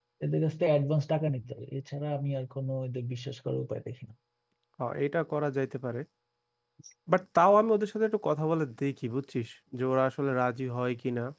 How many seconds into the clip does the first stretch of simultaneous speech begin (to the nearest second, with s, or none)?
none